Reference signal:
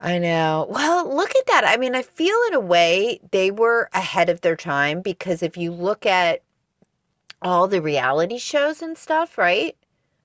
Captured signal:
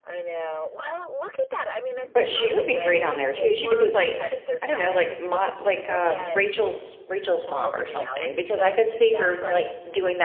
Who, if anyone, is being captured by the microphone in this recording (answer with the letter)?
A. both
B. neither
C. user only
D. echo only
A